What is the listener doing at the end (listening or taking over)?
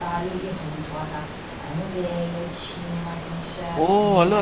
taking over